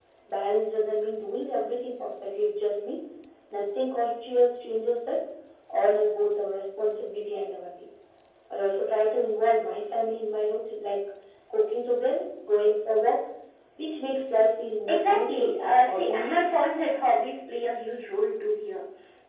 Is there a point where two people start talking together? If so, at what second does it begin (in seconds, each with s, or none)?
14.9 s